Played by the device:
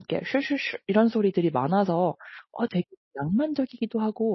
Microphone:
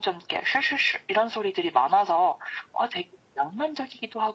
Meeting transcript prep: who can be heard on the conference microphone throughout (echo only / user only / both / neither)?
echo only